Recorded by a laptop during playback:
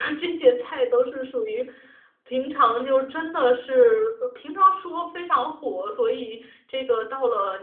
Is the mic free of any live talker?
Yes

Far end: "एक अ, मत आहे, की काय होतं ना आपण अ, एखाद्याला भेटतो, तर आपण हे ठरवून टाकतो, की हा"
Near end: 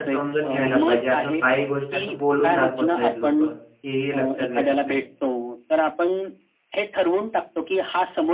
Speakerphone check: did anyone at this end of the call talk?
Yes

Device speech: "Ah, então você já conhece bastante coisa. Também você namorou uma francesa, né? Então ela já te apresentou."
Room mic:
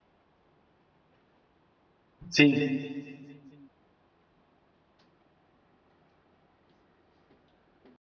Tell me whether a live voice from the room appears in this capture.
Yes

